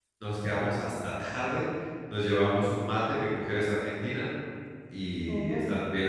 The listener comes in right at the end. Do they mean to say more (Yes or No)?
No